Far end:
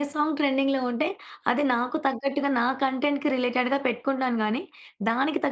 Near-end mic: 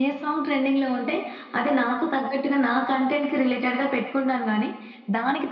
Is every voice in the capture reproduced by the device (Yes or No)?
Yes